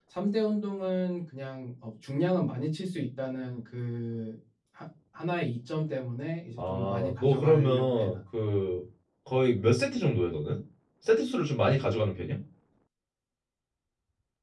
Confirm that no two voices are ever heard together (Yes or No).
No